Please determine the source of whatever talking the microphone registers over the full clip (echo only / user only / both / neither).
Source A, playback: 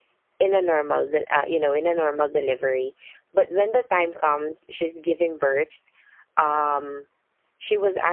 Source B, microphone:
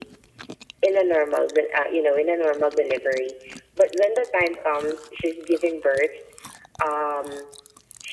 echo only